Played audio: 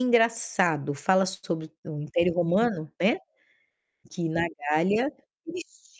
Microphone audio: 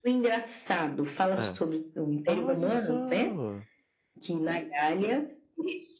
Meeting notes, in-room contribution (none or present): present